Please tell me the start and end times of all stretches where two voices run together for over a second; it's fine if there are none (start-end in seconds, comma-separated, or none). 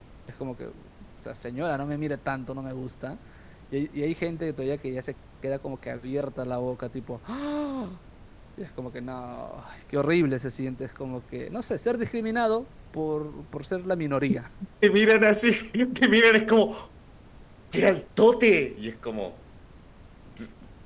none